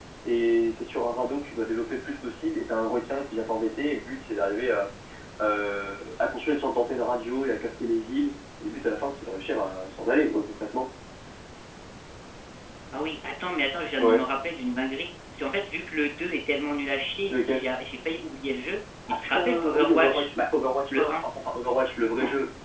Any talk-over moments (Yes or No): Yes